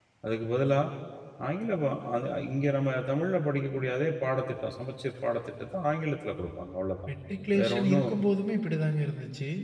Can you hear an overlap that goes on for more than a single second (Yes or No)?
No